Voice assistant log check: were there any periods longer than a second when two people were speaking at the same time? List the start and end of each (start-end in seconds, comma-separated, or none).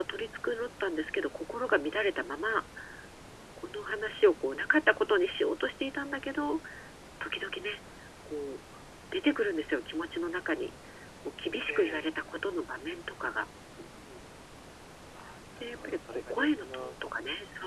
15.6-17.1